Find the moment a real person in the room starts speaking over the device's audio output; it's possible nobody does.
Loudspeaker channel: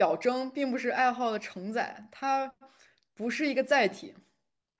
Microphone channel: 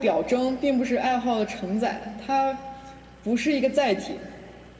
none

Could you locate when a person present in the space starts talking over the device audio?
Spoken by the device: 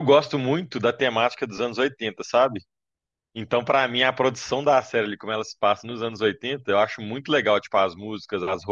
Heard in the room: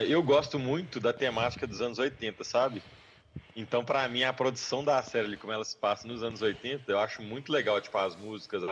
none

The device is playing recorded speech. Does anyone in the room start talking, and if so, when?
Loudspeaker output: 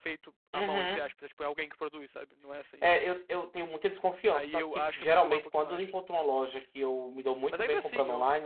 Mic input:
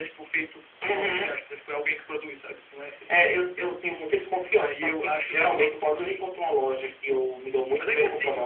none

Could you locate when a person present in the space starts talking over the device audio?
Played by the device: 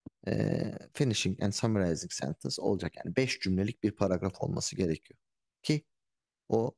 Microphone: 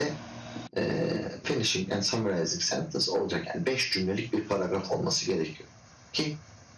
none

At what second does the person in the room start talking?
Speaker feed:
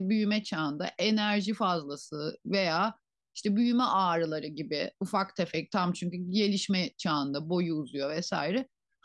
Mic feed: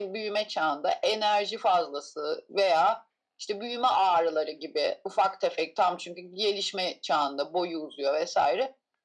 none

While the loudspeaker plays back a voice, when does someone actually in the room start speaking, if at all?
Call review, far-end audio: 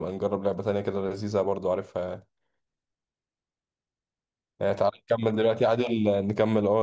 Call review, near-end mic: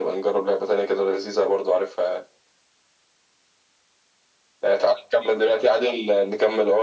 none

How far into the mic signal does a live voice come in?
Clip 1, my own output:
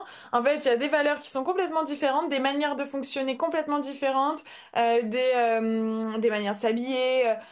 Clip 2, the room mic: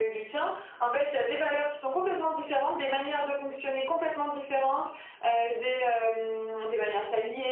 none

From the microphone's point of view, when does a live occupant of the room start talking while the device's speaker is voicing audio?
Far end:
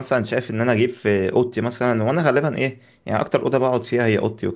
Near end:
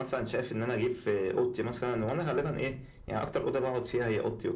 none

